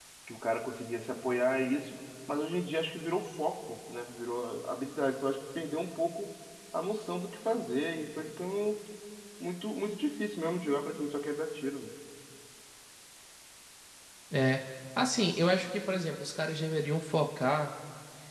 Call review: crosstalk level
none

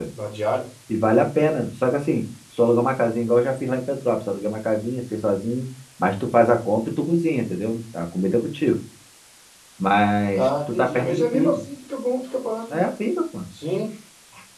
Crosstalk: present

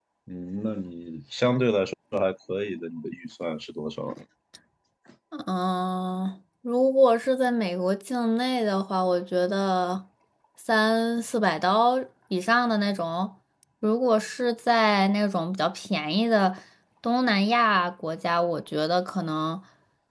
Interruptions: none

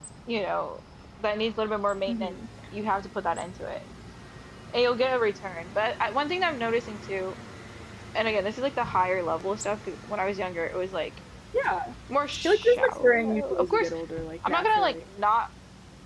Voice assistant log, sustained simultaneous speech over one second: present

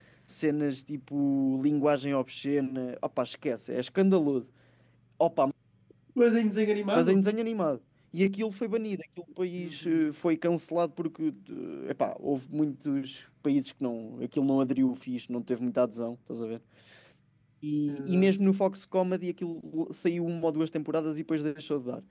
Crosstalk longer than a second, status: none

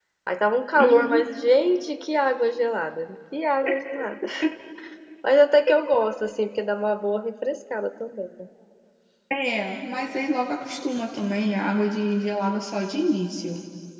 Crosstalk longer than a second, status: none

